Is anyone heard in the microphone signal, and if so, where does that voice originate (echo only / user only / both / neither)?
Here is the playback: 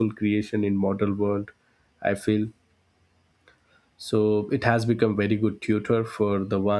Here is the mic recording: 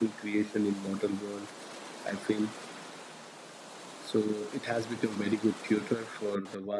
echo only